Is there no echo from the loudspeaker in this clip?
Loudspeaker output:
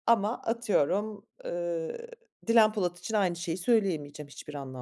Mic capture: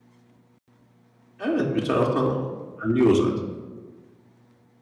Yes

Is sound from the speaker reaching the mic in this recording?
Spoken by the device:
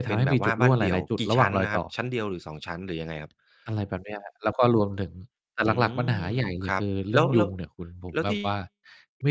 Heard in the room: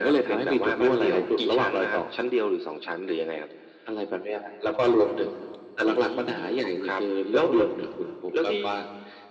Yes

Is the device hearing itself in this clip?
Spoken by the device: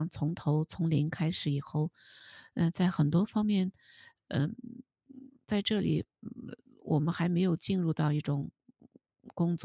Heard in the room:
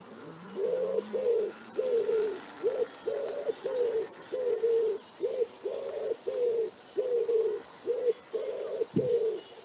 No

